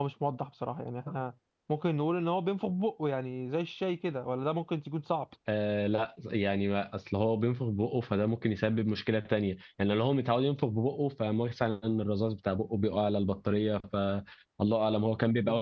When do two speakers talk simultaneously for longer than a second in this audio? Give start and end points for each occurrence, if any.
none

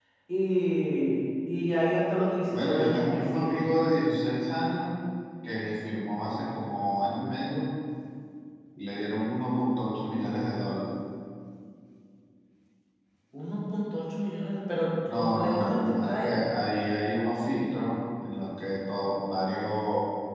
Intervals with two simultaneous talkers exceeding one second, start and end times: 2.5-3.8, 15.1-16.4

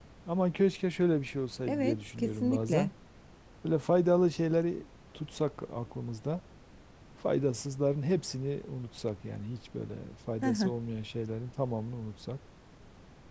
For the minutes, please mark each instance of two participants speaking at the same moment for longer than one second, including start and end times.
1.7-2.9

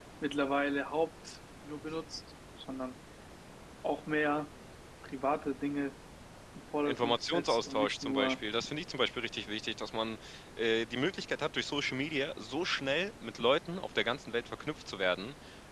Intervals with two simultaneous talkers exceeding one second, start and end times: 6.8-8.4

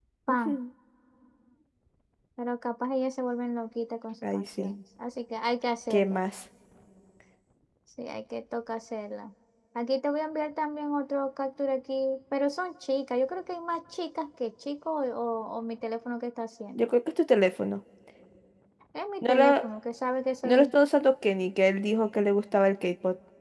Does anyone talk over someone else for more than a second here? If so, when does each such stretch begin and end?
none

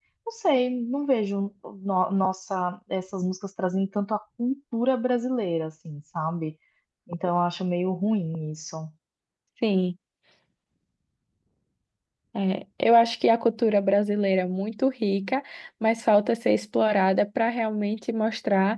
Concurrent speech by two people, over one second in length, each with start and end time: none

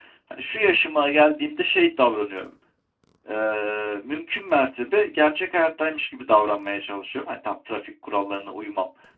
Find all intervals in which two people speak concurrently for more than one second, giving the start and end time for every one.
none

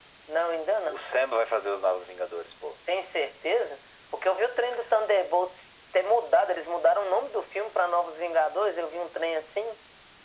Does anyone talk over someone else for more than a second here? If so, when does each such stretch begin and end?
none

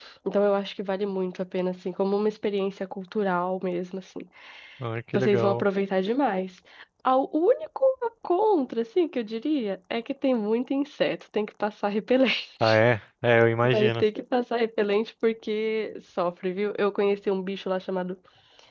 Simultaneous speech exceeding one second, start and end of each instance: none

